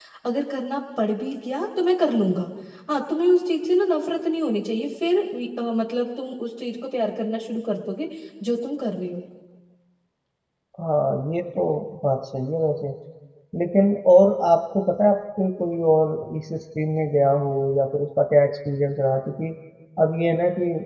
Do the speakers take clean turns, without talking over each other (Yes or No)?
Yes